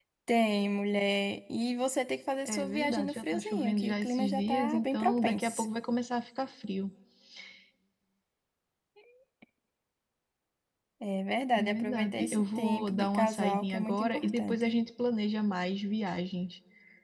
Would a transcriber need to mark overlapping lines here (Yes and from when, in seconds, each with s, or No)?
Yes, from 2.5 s